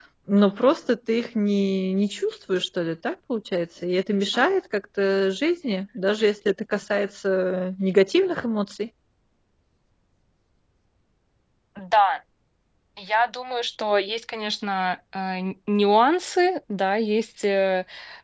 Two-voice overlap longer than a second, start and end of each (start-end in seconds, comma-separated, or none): none